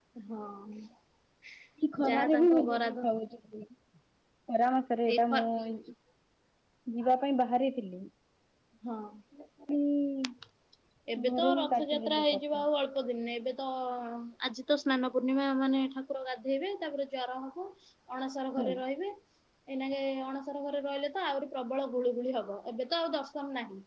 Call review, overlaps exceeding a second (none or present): present